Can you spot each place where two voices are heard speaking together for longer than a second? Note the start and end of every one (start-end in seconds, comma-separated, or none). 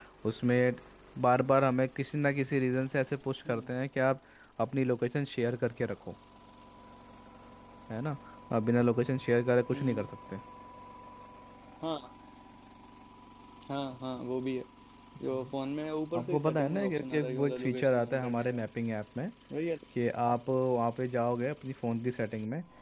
16.2-18.6